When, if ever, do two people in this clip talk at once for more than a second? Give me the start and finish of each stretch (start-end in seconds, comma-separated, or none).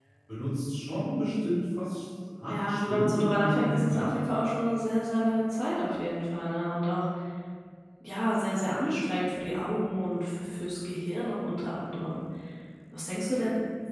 2.5-4.1